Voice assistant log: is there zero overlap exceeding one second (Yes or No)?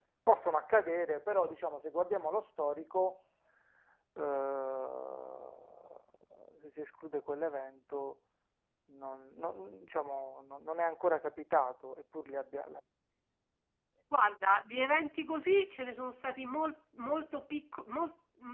Yes